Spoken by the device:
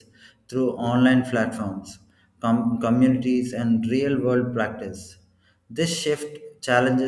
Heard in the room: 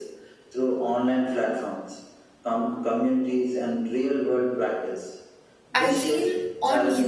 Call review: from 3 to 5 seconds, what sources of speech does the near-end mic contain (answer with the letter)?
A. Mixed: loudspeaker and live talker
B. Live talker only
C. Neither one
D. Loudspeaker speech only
D